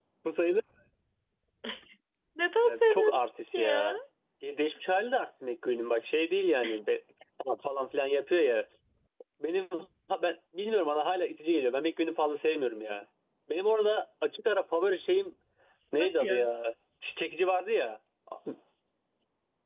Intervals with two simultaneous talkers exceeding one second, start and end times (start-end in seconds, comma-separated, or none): 2.6-3.9